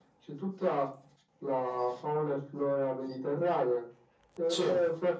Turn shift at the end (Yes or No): No